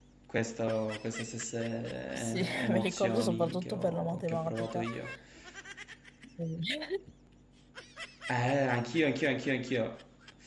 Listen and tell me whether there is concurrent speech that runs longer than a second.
Yes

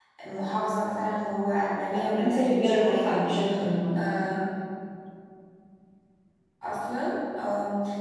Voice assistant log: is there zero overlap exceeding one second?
No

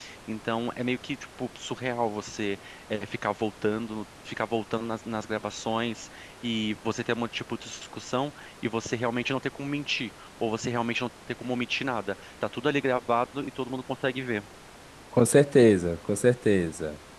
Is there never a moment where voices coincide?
Yes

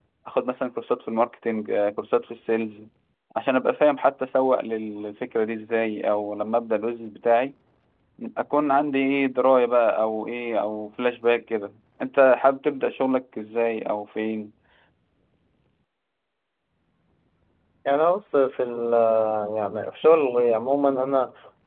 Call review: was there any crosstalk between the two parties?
No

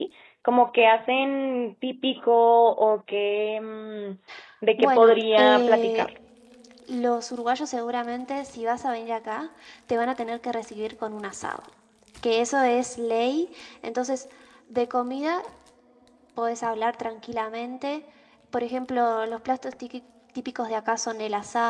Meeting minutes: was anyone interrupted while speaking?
Yes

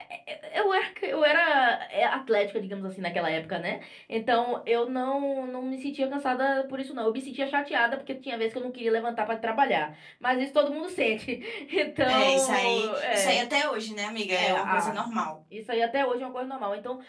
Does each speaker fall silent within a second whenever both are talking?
No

